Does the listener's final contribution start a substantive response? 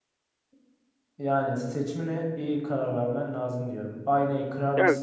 No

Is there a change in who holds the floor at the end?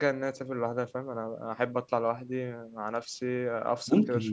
Yes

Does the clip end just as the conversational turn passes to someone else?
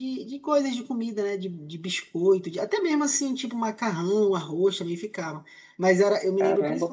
Yes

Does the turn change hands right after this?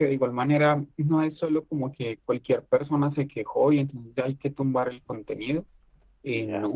No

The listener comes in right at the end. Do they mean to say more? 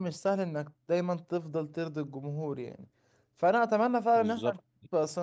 No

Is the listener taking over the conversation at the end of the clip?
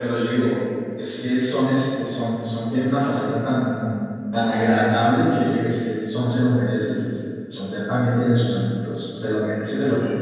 Yes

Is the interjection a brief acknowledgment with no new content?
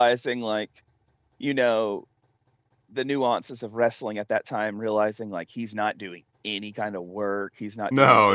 No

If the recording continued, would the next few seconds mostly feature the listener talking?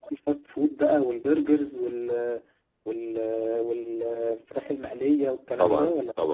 Yes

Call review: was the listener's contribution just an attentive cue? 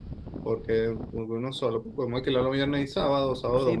No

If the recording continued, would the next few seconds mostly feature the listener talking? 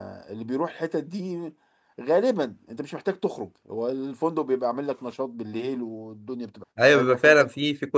Yes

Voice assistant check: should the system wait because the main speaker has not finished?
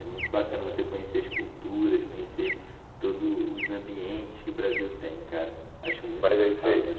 No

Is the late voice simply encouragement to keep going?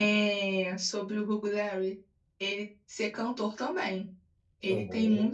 Yes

